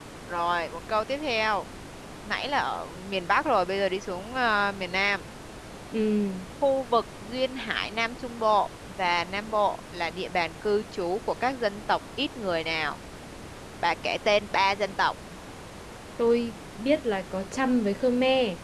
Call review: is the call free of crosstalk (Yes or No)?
Yes